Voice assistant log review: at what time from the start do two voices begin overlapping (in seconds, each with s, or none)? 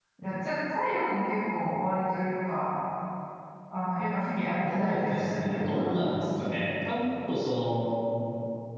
4.6 s